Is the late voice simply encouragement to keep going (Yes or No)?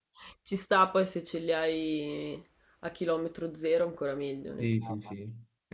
No